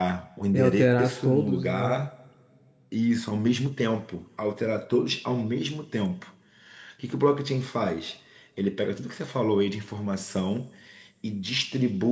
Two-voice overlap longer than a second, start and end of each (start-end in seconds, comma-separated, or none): 0.5-2.1